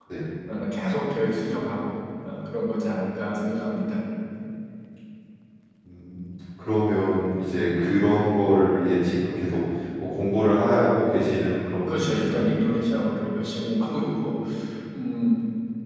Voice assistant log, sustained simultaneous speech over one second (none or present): none